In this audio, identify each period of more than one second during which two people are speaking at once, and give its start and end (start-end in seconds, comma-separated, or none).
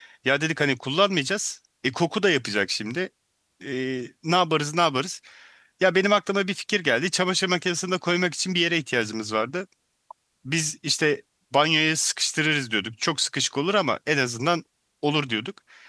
none